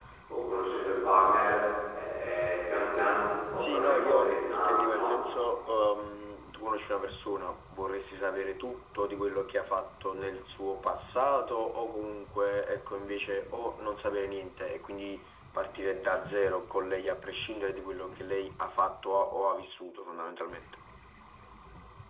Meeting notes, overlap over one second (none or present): present